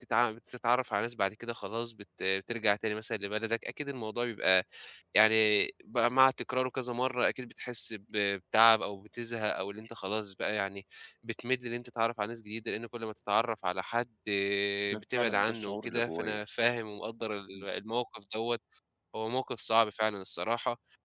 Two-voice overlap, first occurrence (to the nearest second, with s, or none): 15 s